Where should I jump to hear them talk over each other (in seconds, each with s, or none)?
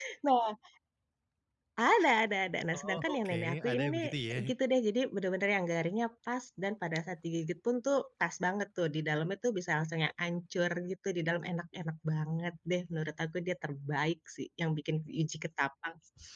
2.7 s